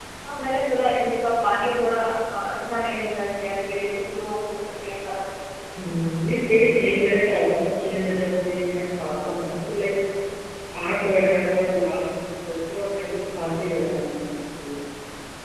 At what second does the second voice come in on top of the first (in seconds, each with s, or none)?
none